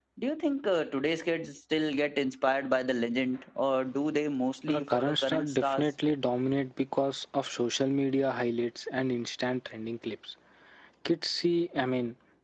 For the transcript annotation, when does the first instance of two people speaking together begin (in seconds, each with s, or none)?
4.7 s